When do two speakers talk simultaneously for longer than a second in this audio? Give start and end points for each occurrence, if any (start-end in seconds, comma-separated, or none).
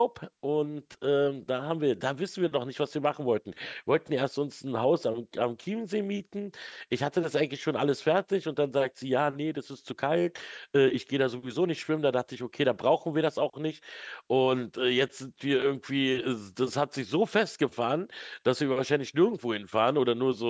none